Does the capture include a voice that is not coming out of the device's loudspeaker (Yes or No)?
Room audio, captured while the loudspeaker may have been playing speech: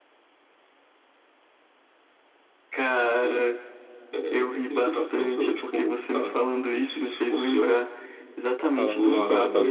Yes